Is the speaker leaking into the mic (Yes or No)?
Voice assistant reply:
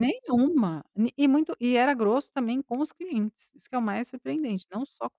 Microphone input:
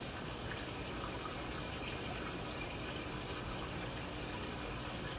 No